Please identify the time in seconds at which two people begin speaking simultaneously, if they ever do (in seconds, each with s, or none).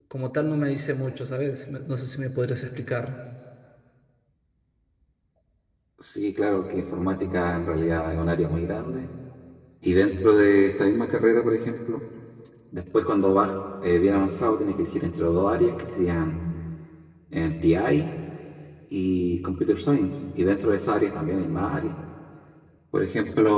none